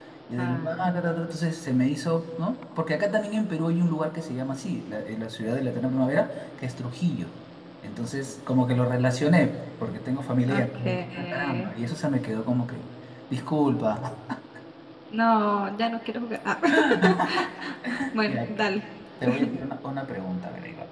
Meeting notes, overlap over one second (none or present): present